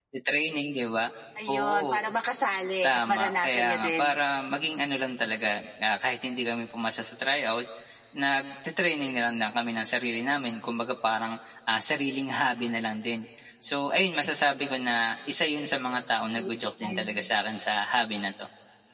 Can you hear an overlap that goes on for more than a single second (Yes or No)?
Yes